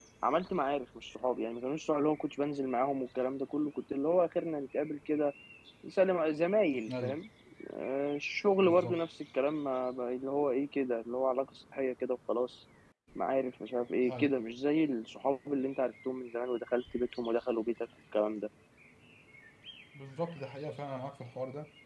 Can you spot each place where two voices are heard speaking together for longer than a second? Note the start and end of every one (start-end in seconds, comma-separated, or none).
none